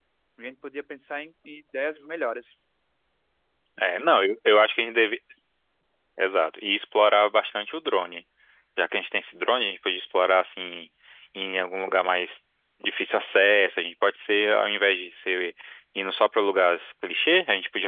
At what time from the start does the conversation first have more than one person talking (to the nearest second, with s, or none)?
none